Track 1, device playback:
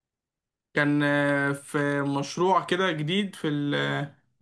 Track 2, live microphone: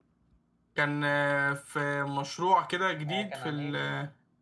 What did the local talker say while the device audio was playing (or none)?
آه، كان عن ايه